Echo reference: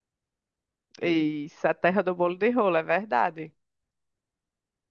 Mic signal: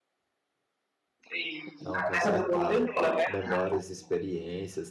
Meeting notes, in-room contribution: present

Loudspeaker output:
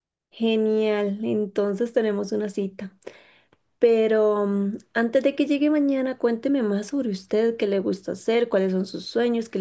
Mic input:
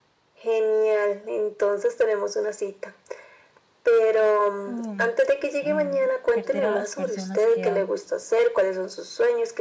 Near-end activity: present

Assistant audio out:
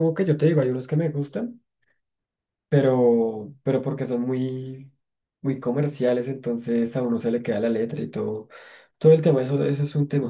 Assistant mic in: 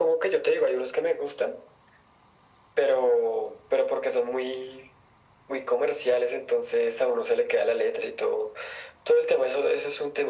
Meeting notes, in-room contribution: none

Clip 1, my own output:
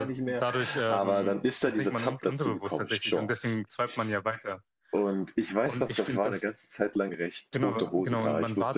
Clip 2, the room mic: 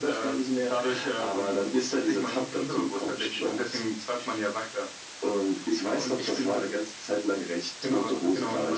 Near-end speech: none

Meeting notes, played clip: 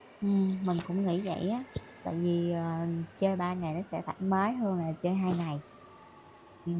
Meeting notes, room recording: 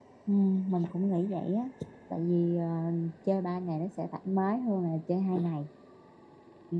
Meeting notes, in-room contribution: none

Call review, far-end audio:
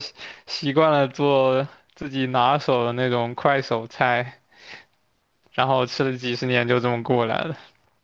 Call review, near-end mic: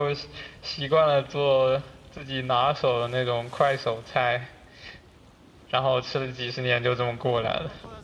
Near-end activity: none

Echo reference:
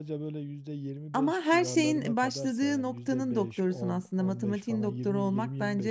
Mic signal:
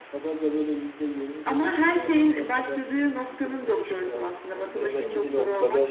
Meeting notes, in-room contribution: present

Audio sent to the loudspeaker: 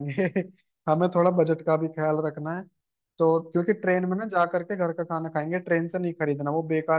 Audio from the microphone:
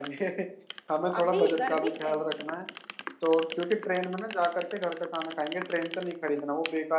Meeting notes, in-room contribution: present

